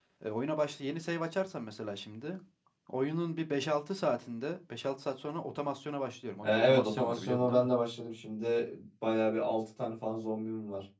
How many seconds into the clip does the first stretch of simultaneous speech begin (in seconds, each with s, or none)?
6.4 s